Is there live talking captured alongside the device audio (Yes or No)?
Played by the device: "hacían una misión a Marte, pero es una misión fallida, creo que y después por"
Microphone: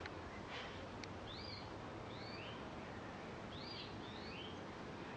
No